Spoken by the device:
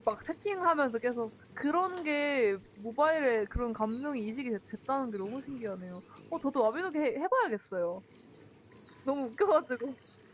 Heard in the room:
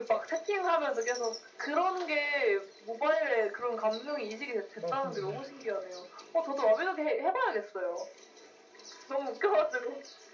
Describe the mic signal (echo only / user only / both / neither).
both